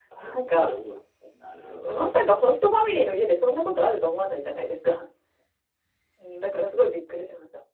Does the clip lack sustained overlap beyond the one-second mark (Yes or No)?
Yes